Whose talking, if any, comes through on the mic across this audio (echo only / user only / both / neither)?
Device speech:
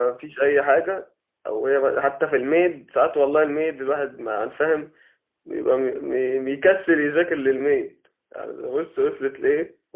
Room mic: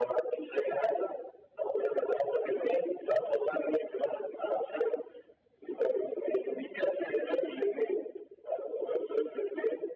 echo only